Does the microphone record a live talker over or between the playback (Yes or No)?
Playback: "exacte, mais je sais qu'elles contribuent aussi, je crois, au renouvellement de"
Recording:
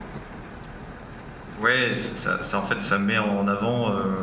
Yes